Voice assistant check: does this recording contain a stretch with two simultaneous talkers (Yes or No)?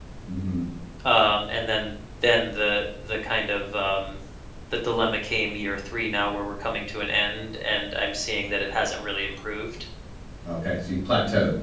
No